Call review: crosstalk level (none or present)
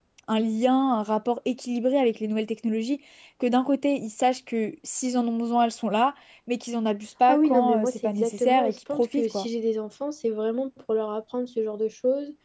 present